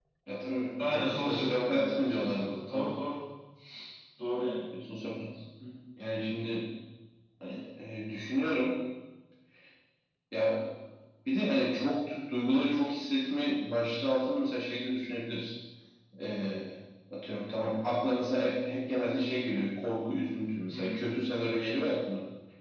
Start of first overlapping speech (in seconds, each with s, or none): 0.8 s